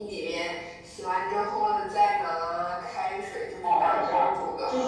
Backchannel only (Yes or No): No